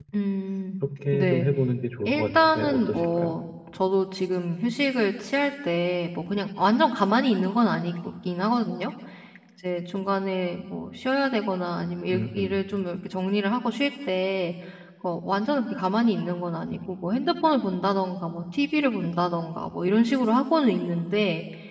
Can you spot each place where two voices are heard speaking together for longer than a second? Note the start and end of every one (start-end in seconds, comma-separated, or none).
2.1-3.4